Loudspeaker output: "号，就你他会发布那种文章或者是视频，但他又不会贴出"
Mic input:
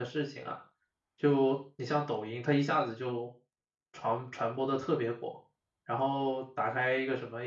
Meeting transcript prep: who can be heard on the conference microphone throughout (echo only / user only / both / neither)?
user only